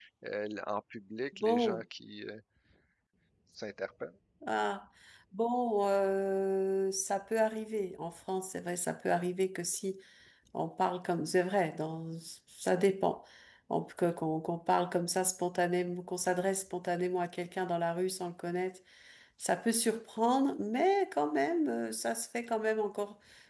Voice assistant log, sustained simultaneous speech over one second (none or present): none